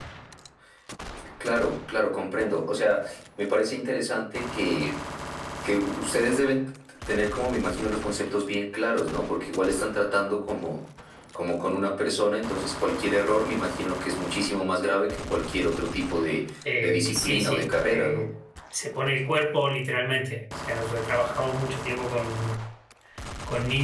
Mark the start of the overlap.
16.6 s

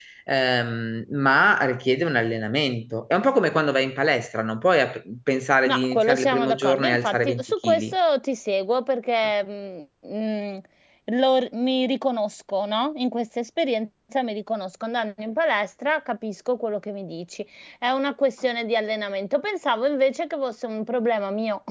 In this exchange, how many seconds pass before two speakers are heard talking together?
5.7 s

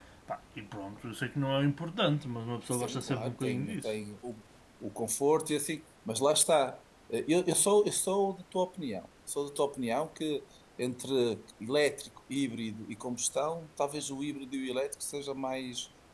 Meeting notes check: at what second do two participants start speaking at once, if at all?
2.7 s

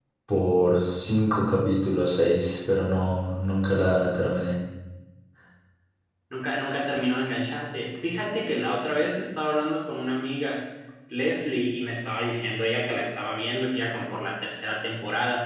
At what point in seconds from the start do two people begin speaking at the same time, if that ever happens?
none

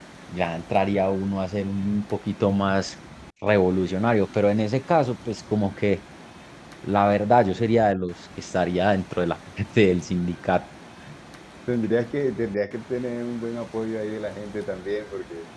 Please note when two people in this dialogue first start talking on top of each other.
none

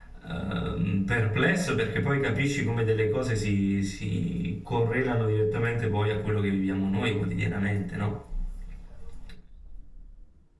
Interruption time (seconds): none

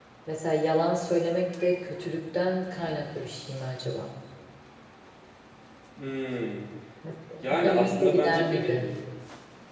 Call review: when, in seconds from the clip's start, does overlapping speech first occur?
7.4 s

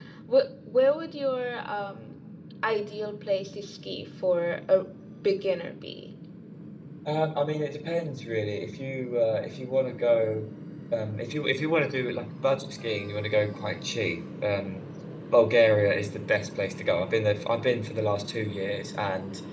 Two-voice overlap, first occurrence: none

